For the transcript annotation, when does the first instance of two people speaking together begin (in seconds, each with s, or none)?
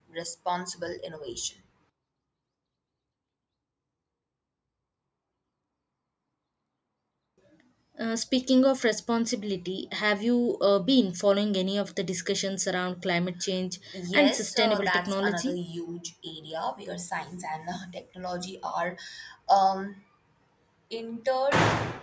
14.1 s